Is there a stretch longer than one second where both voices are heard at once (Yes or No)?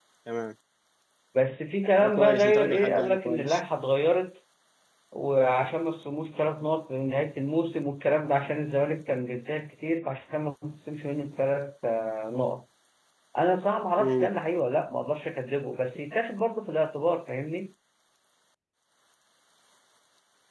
Yes